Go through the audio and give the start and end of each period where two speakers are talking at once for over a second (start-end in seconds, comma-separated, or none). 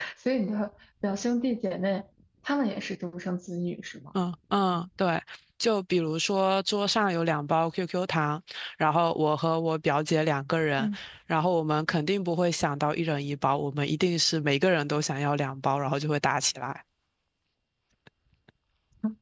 none